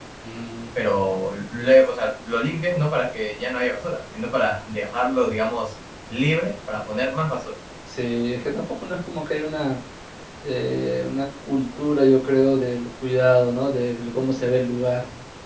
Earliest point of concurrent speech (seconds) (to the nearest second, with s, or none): none